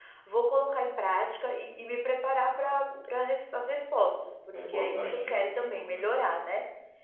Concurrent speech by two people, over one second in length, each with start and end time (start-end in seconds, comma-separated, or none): 4.5-6.1